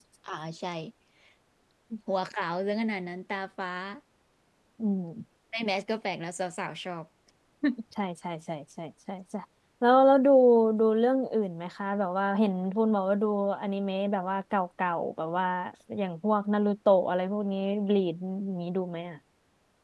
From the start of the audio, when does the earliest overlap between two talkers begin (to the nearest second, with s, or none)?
none